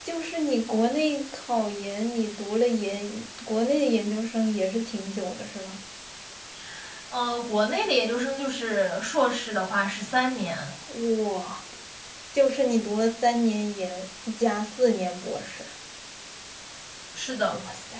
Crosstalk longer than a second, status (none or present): none